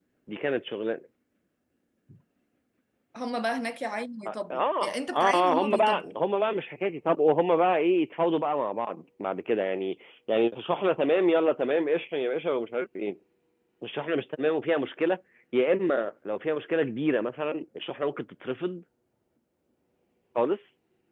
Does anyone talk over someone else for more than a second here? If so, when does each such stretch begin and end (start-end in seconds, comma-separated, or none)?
4.2-6.2